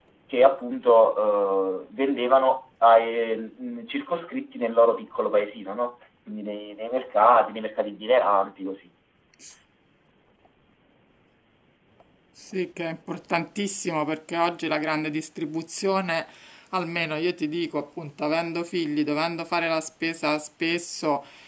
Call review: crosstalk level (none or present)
none